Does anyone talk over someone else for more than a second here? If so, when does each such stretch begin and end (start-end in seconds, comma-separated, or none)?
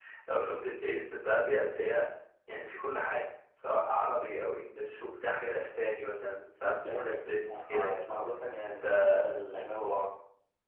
6.7-8.1